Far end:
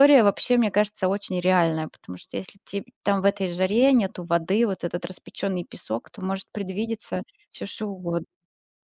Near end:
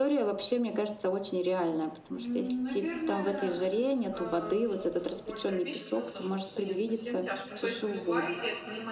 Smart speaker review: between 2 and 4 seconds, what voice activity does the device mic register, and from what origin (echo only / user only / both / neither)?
both